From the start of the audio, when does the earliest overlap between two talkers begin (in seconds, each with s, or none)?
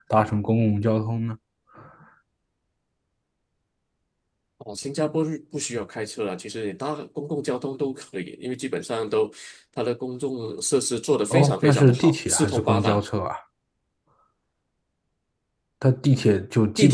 11.3 s